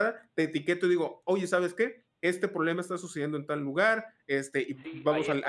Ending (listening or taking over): taking over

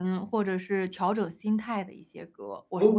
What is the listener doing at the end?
taking over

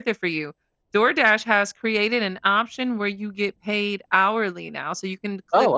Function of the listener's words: listening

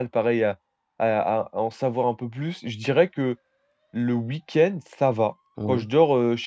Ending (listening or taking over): listening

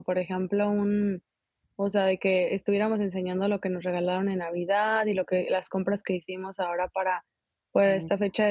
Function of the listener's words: listening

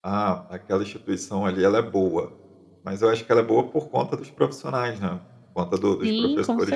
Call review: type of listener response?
taking over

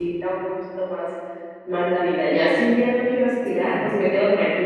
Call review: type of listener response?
listening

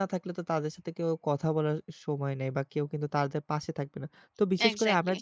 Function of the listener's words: listening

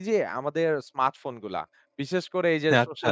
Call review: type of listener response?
listening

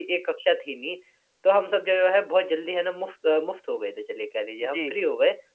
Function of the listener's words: listening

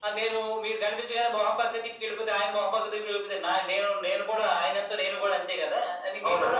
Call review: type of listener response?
taking over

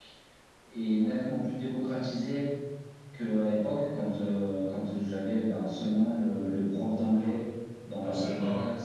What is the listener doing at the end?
listening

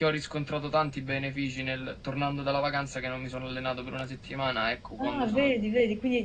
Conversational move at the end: taking over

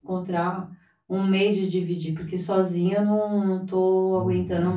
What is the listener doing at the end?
taking over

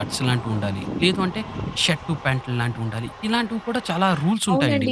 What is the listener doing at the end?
taking over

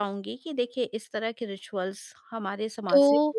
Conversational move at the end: taking over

